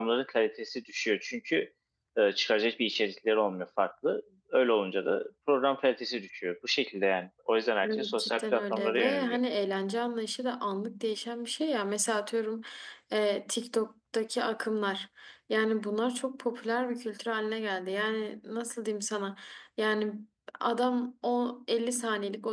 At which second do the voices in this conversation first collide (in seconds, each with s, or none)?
7.8 s